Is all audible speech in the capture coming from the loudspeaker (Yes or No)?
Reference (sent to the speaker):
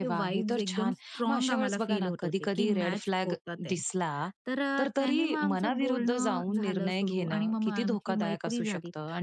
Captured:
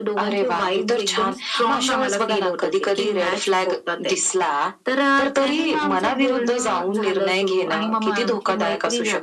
Yes